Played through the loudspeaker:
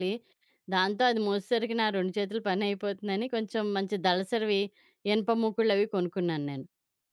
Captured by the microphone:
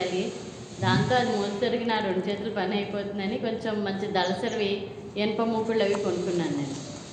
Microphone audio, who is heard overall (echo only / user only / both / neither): both